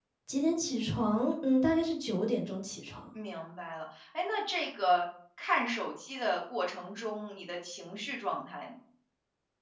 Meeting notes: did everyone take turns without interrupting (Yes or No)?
Yes